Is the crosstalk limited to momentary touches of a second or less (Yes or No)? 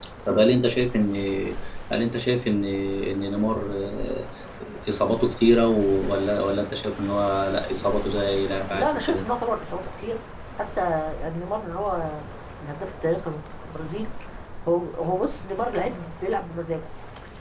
Yes